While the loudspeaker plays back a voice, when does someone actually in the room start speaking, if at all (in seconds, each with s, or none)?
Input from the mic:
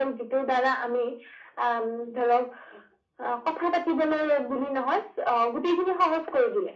none